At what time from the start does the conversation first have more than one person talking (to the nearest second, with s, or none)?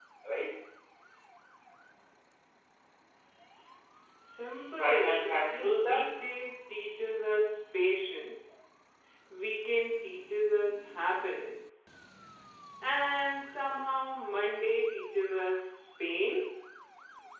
5 s